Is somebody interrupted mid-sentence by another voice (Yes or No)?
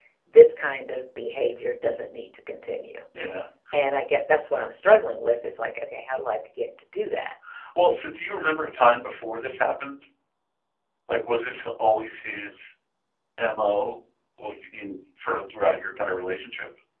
No